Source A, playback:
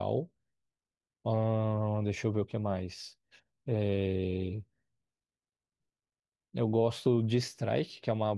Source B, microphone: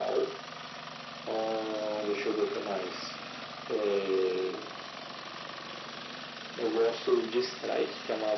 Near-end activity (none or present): none